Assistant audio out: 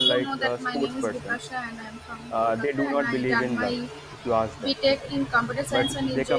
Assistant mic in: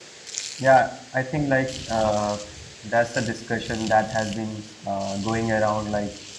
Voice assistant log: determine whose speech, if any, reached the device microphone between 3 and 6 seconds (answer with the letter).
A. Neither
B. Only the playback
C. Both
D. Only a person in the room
D